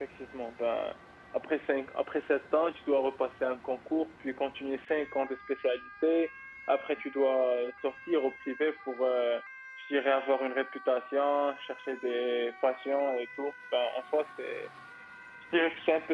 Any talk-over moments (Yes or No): No